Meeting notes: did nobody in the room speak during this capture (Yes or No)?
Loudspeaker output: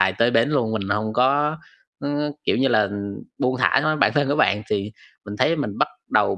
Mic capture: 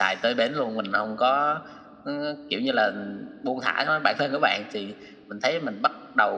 Yes